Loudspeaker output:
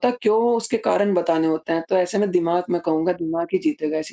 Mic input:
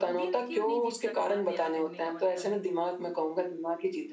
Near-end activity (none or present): present